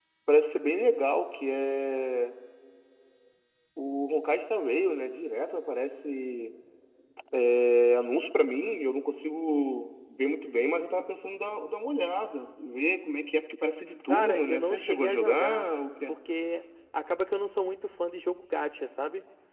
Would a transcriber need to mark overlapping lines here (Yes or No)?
Yes